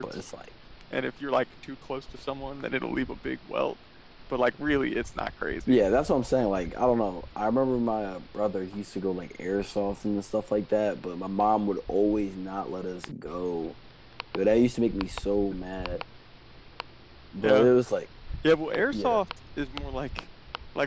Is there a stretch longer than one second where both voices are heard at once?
No

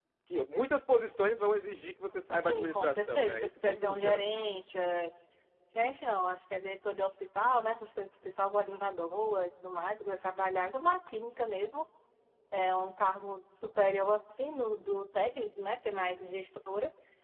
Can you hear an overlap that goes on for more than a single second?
Yes, from 2.4 s

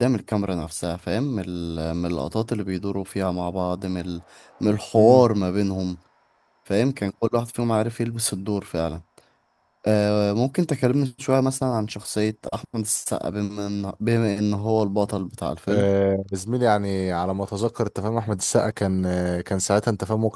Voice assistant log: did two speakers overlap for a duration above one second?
No

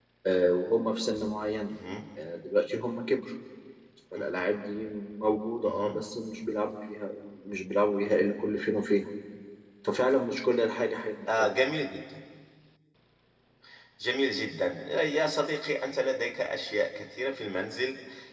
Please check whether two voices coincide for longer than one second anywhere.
No

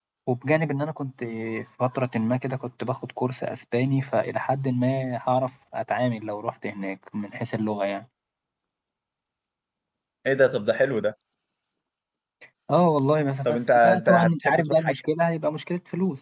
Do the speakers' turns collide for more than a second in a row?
Yes, from 13.4 s

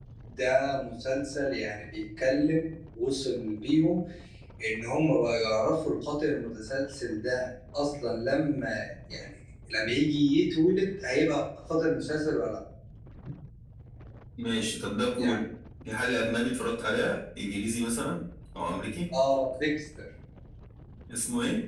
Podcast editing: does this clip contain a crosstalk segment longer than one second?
No

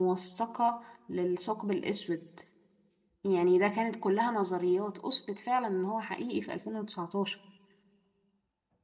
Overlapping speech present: No

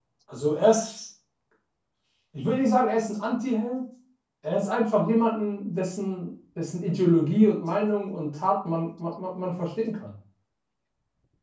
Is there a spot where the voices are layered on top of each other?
No

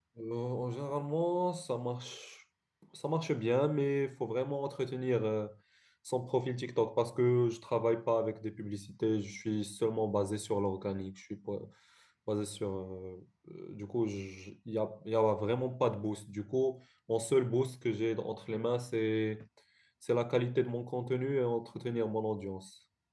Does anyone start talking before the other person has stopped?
No

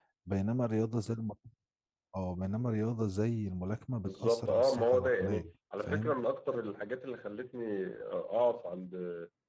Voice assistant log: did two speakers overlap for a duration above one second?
Yes, from 4.0 s

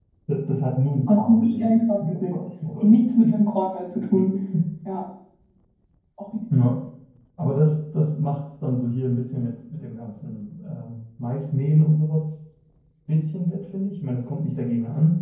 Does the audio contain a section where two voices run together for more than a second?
Yes, from 1.1 s

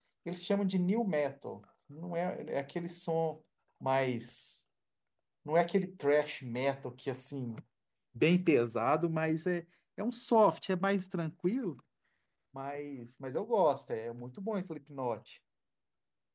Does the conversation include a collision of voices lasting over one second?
No

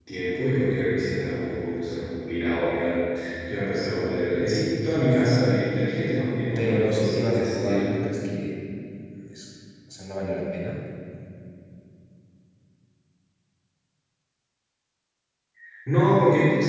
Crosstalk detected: Yes, from 6.6 s

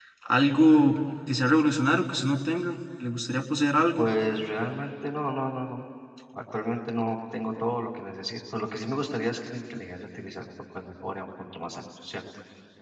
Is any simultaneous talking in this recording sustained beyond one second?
No

